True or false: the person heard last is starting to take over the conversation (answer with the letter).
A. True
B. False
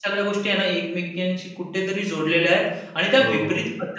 B